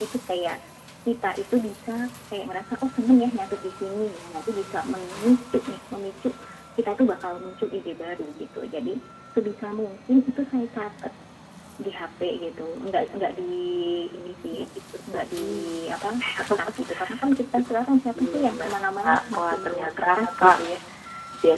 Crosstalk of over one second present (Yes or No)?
Yes